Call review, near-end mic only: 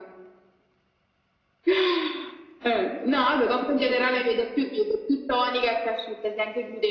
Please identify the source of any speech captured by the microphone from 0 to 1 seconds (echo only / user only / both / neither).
neither